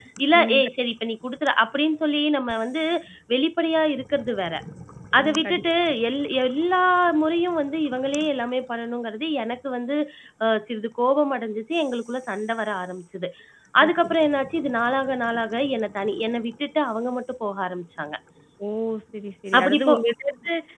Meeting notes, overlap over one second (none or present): none